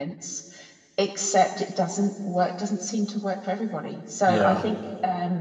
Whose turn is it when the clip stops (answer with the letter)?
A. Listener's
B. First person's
B